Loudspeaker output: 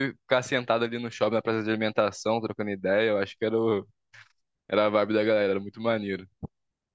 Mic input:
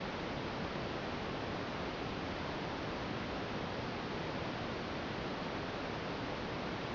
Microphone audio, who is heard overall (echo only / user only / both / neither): neither